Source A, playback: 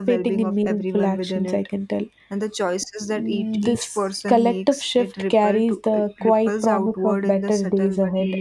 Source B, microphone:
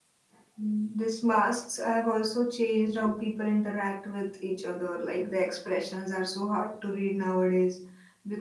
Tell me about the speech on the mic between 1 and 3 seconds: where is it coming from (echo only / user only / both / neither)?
user only